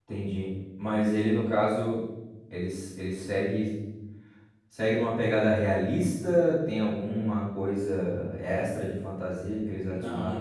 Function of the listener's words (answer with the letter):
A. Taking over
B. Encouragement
A